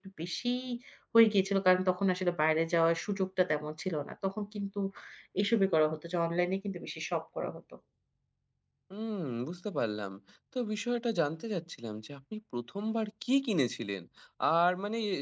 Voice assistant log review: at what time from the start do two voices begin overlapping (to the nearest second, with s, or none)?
none